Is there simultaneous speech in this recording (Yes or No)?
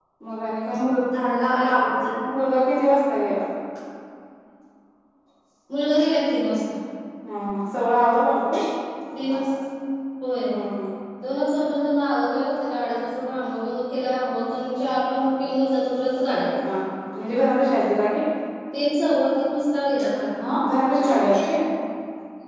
No